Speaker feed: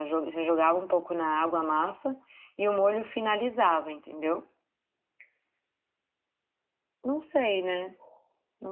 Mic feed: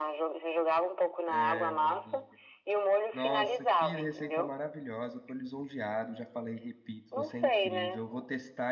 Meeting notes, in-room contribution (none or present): present